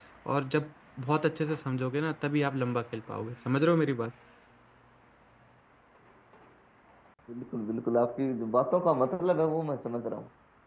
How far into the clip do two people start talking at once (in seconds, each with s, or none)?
none